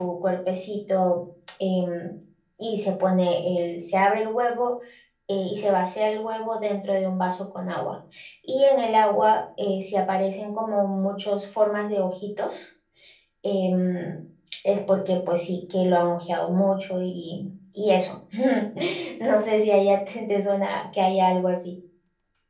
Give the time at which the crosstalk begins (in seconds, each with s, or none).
none